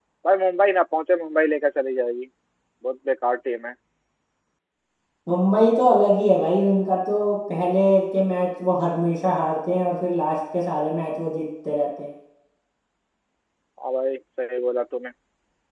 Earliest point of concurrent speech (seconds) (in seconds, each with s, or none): none